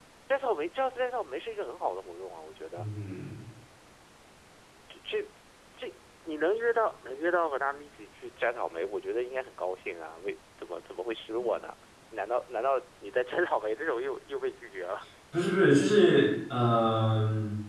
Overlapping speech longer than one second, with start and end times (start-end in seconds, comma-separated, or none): none